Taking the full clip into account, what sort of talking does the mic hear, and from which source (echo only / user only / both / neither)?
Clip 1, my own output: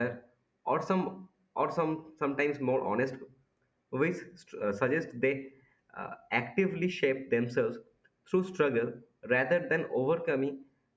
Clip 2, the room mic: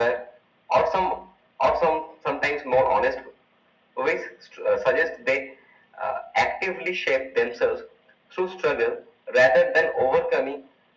echo only